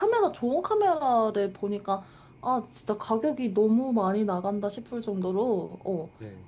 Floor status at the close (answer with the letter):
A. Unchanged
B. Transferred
A